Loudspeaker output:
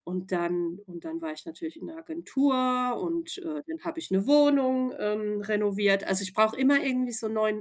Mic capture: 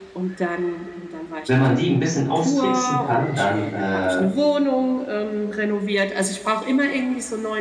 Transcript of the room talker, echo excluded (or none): wenn man die ein bisschen austricksen kann, dann, äh,